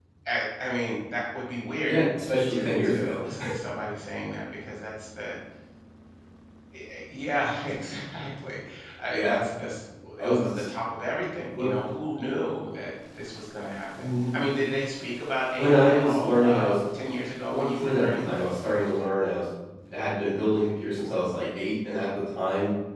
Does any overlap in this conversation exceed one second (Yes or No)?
Yes